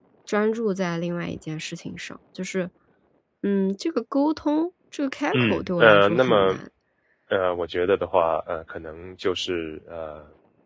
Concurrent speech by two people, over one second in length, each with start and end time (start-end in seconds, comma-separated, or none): 5.3-6.5